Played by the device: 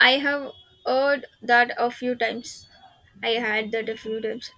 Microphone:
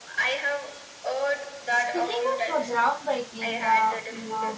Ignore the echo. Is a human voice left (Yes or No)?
Yes